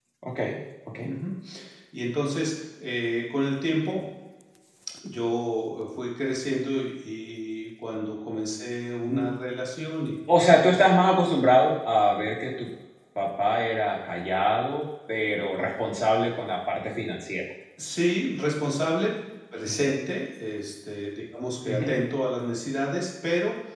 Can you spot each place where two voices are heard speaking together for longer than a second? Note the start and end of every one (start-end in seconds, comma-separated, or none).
none